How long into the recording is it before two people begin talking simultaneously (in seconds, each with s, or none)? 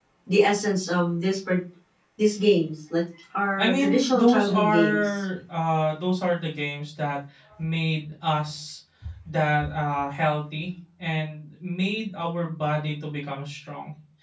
3.6 s